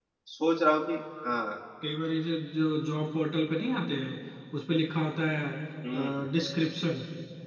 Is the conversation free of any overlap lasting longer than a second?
Yes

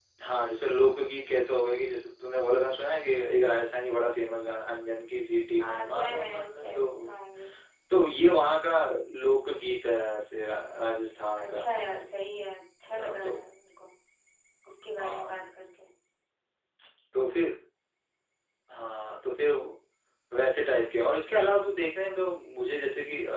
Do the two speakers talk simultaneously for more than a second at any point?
Yes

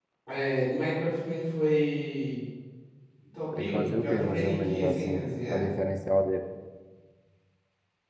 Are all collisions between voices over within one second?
No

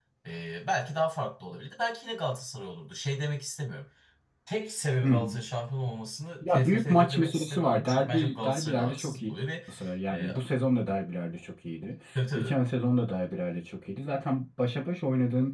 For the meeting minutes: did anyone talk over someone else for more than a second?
Yes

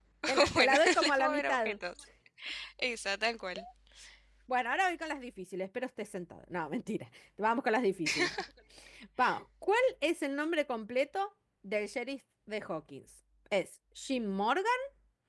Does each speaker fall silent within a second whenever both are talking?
No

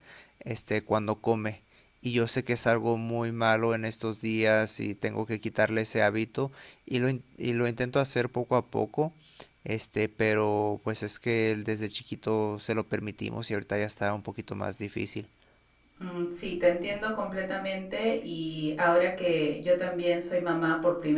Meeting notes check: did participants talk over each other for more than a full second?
No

